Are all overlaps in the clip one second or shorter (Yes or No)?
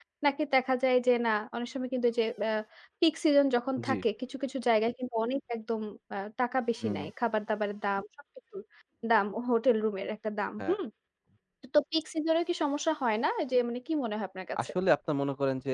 Yes